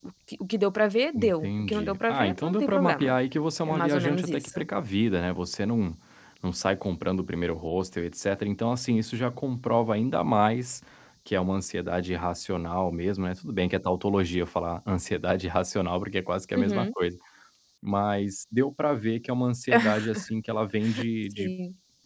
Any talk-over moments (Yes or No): Yes